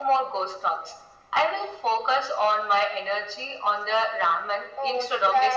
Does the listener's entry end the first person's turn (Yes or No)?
Yes